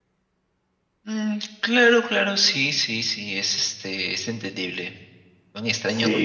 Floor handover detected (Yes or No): Yes